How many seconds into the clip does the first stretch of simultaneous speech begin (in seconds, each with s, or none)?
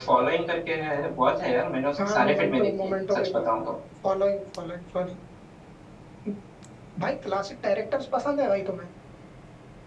1.9 s